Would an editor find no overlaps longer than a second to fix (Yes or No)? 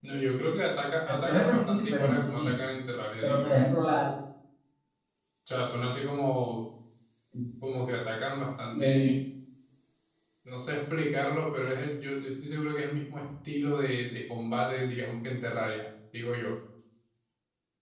No